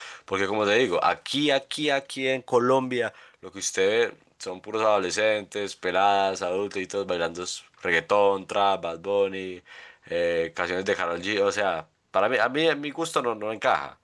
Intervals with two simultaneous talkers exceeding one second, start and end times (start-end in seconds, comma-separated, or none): none